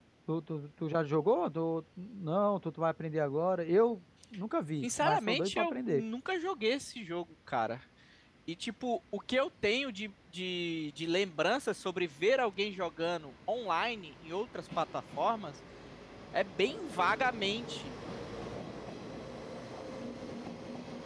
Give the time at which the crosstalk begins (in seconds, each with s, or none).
4.8 s